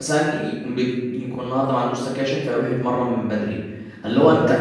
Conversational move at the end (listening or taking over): listening